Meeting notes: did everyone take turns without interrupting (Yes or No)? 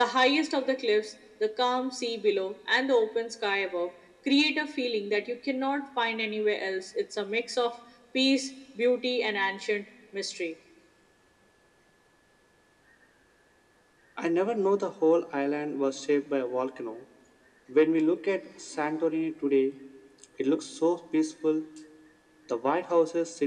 Yes